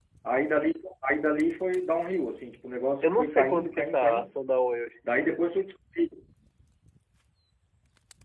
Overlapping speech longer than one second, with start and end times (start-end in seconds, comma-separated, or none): 3.0-4.4